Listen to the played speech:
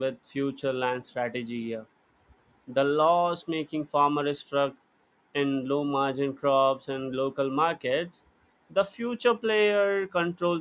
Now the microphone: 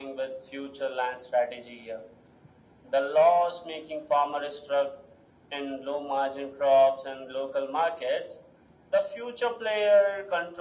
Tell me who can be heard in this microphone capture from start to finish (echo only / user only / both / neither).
echo only